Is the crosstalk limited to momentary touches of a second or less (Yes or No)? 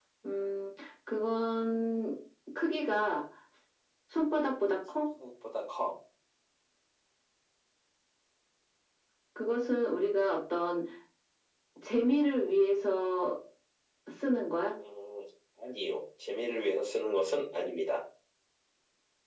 Yes